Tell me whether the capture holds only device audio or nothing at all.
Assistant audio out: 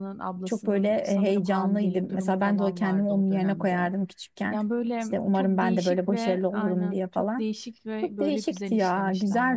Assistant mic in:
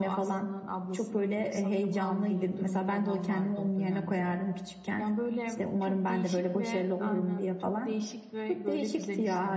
Yes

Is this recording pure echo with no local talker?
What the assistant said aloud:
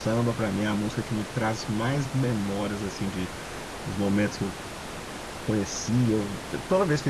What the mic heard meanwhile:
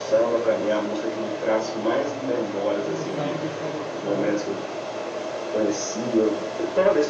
No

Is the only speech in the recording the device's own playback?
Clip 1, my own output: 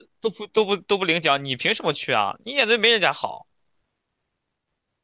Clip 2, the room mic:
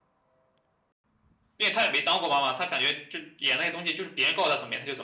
No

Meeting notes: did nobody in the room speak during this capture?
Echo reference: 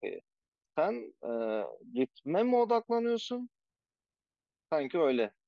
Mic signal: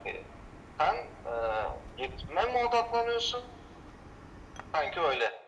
Yes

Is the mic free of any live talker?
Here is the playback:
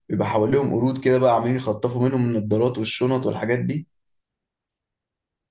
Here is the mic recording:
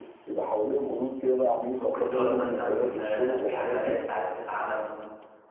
No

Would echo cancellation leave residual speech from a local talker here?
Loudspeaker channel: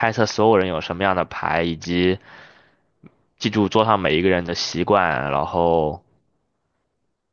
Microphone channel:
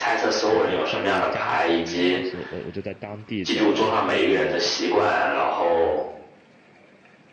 Yes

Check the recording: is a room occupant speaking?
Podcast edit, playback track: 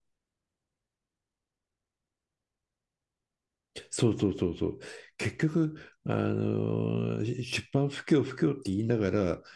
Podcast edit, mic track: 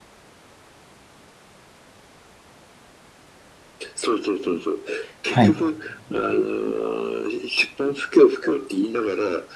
Yes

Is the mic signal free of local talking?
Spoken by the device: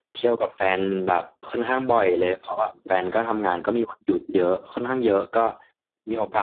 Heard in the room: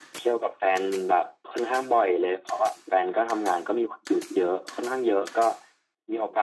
Yes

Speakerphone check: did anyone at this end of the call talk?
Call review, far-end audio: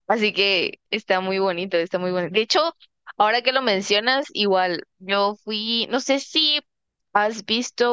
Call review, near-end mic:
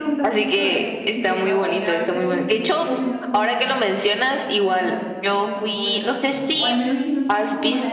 Yes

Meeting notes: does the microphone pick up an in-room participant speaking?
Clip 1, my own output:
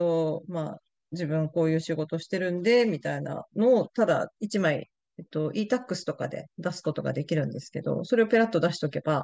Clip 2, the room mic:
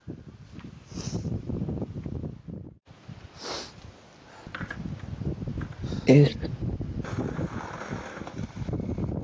Yes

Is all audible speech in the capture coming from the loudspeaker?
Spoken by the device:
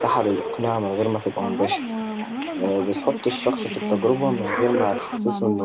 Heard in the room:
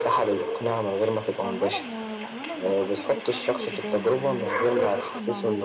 Yes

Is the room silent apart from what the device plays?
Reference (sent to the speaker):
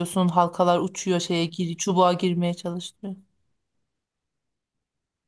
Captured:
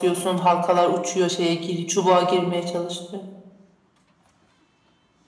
Yes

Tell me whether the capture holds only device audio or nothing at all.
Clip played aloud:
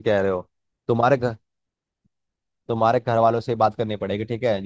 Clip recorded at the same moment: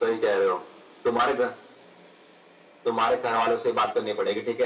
Yes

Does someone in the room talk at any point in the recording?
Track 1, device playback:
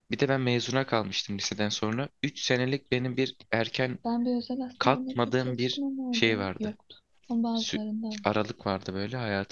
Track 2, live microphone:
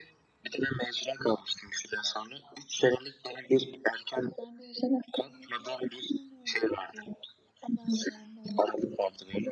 No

